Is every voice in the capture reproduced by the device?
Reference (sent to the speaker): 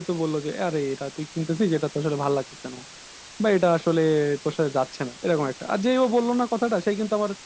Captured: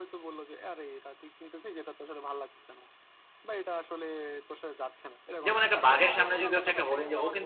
No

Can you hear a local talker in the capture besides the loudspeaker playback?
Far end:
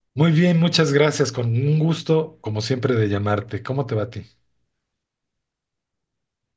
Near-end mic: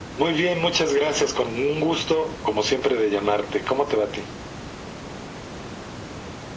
No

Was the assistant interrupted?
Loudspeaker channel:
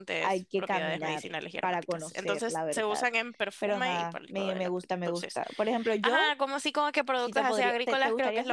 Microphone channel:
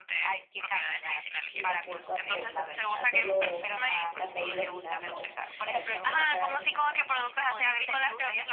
Yes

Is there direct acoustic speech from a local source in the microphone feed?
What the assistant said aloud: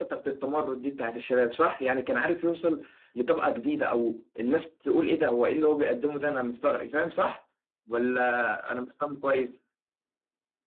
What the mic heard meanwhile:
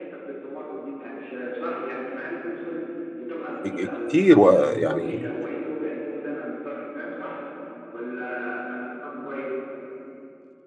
Yes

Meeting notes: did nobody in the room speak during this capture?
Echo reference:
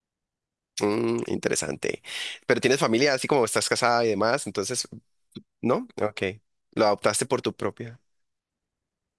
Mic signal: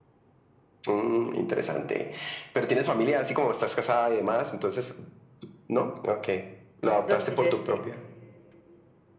No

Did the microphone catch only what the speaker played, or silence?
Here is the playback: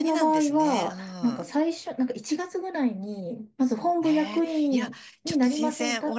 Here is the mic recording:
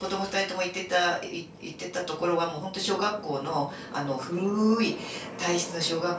No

